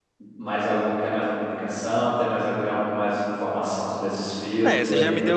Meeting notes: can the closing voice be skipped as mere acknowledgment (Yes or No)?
No